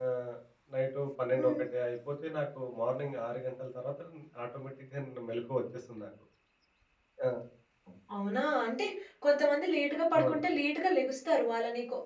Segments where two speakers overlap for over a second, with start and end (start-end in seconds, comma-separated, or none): none